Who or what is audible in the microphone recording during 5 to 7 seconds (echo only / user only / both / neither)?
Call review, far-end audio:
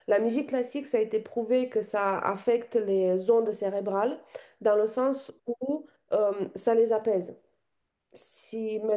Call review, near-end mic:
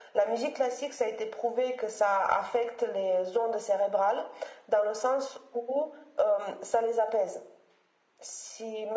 echo only